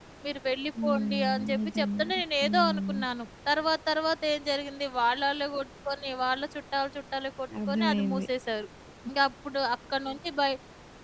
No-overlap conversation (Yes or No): No